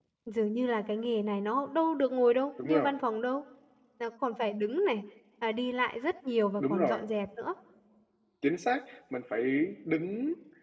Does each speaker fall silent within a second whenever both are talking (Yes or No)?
Yes